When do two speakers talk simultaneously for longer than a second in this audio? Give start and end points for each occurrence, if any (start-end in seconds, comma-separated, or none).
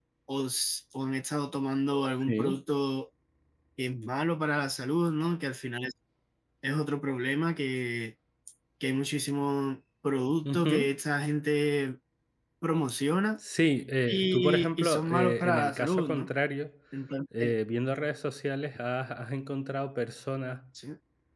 14.1-16.3